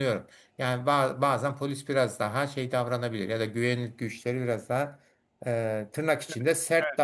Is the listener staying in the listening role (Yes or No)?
No